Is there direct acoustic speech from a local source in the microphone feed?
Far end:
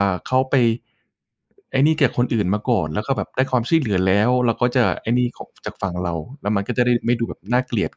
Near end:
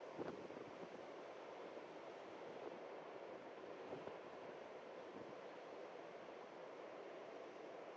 No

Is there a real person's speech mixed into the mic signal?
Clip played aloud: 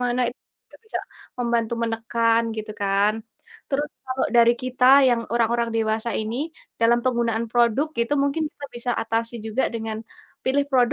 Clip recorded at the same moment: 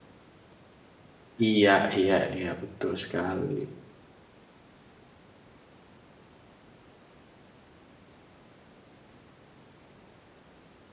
Yes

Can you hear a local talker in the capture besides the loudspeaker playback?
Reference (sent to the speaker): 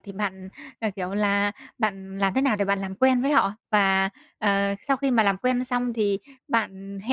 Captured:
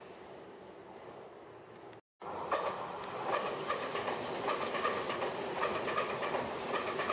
No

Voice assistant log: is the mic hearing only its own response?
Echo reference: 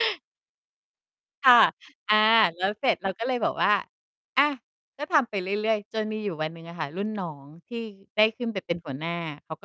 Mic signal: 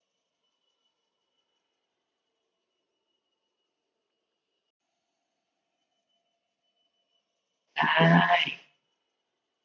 No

